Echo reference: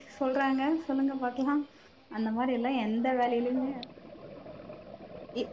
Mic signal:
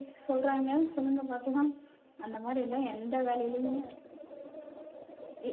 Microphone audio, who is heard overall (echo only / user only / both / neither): echo only